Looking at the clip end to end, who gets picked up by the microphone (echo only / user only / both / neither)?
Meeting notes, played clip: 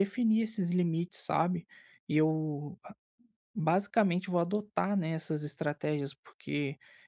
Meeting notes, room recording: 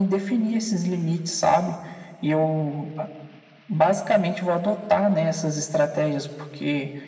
echo only